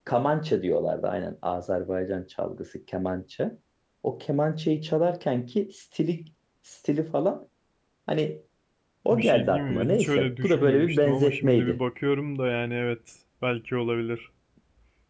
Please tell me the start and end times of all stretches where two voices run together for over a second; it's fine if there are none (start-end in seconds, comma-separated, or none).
9.1-11.8